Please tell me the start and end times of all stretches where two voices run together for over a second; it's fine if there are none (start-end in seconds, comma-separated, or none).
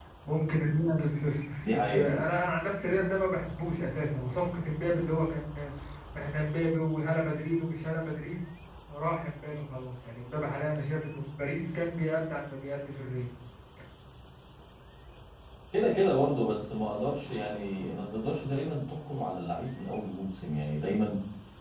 none